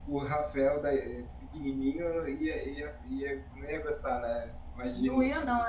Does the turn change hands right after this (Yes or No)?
Yes